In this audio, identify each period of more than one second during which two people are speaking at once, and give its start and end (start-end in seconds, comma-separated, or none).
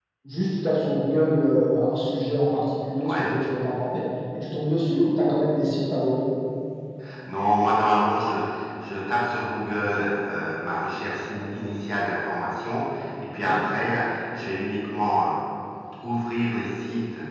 none